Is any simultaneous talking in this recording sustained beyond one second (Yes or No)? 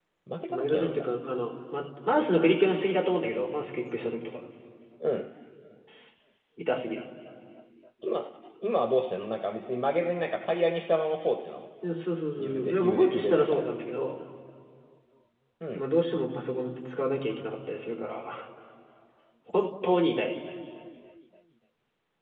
Yes